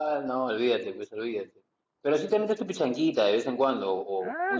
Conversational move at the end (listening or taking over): taking over